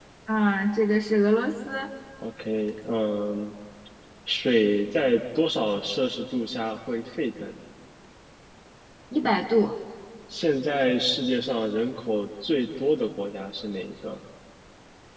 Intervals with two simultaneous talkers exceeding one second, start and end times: none

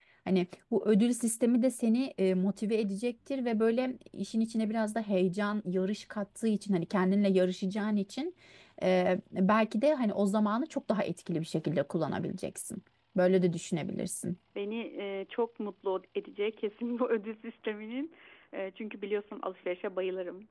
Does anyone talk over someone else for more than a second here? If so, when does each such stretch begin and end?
none

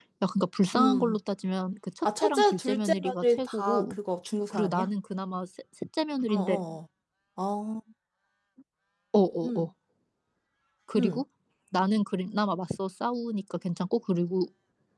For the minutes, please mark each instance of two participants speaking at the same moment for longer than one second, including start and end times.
2.0-4.0

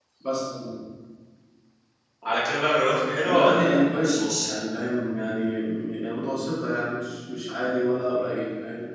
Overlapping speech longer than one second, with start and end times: 3.2-4.5

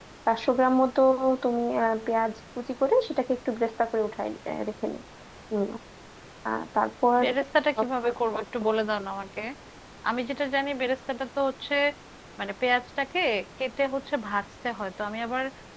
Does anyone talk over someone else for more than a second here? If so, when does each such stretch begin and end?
none

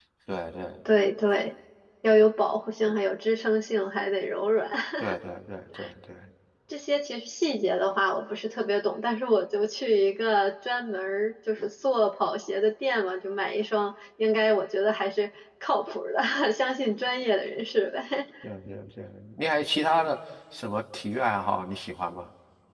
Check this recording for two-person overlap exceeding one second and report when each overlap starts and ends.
none

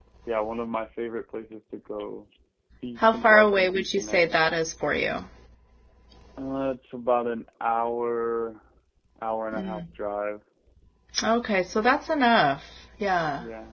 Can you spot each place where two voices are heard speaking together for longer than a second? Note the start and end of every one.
3.0-4.2

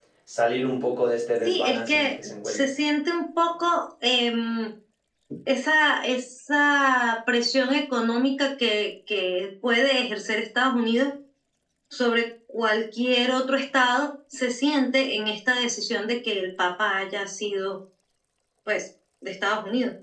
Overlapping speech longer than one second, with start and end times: 1.4-2.7

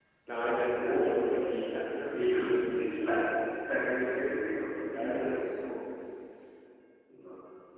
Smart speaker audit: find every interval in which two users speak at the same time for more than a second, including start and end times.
2.0-3.2

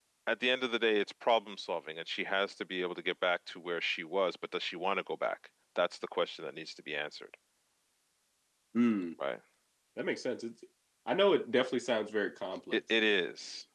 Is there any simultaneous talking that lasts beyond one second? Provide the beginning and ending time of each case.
none

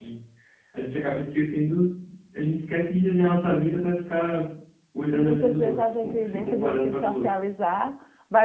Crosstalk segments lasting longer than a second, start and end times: 5.1-7.4

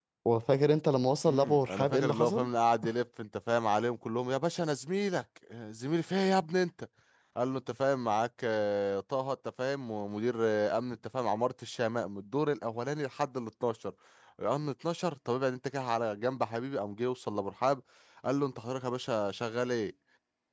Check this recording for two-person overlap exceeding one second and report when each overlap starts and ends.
1.3-2.5

